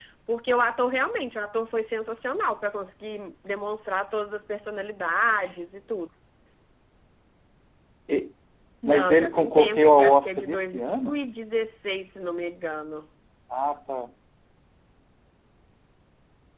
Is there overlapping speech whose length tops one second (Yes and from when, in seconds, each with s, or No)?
Yes, from 8.8 s